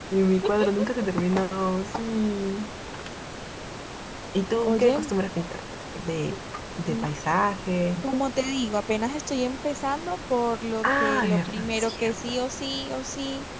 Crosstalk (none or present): present